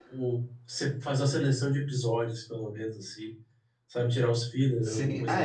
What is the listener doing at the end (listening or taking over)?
taking over